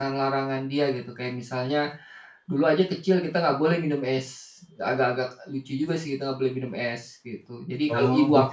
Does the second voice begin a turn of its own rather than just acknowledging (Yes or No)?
Yes